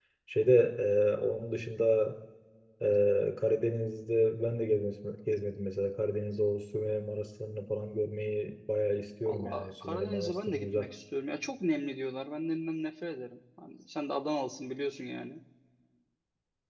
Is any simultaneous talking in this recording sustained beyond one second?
Yes, from 9.2 s

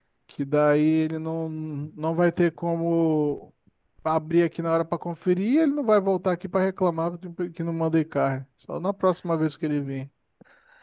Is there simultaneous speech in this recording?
No

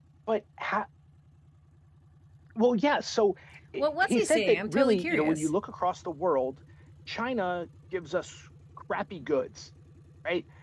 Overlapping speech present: Yes, from 3.8 s

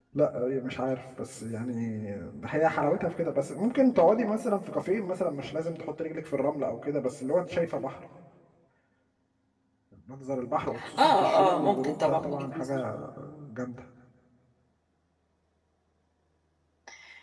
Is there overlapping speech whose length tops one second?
Yes, from 10.8 s

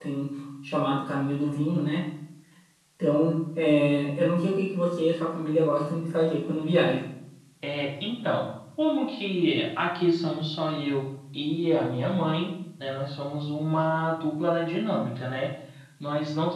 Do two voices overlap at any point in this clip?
No

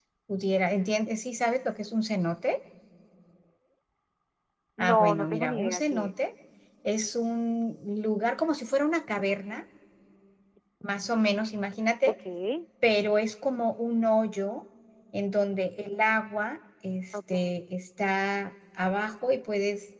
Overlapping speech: Yes, from 4.8 s

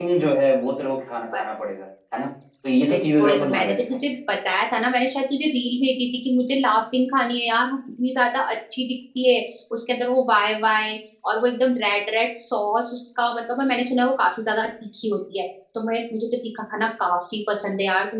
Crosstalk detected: Yes, from 2.9 s

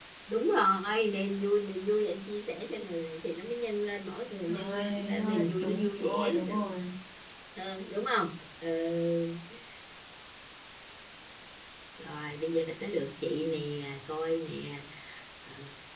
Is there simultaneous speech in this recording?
Yes, from 4.5 s

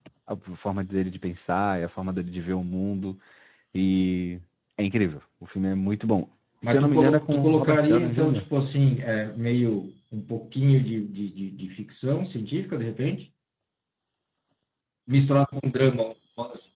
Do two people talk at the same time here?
Yes, from 6.6 s

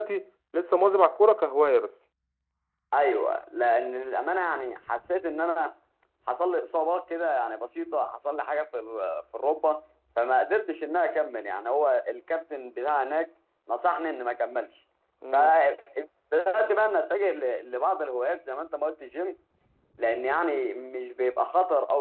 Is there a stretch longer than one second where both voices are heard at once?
No

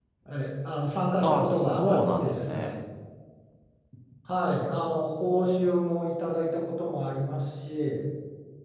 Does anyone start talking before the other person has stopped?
Yes, from 1.2 s

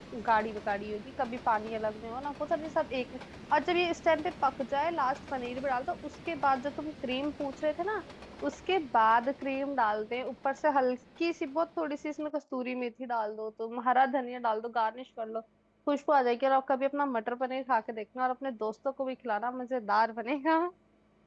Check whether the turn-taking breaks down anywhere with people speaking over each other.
No

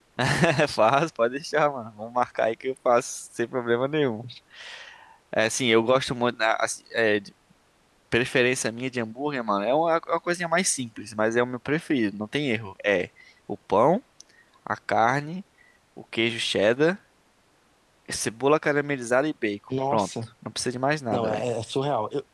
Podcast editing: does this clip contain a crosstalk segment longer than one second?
No

